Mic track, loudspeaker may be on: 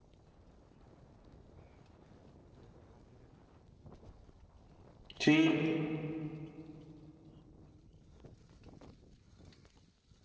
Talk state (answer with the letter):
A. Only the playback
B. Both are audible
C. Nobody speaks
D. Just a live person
D